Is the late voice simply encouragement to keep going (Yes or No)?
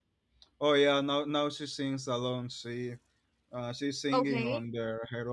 Yes